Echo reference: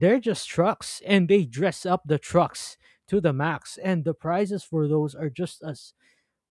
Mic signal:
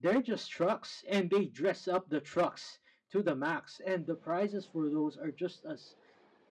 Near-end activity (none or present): none